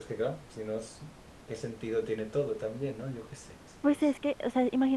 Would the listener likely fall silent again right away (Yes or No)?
No